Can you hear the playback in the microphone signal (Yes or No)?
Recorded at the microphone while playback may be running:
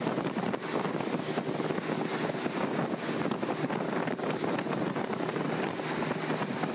No